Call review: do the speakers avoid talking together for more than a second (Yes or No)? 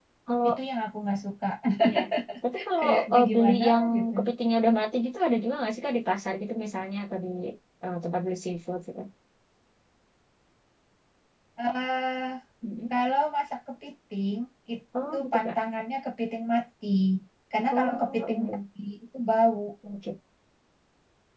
No